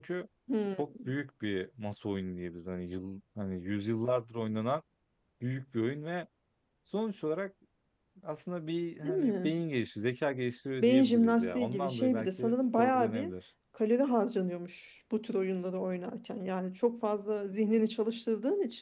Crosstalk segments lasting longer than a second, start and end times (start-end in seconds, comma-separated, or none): 10.8-13.3